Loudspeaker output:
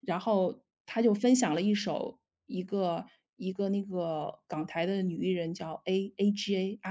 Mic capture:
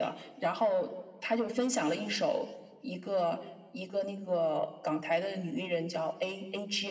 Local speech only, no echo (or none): none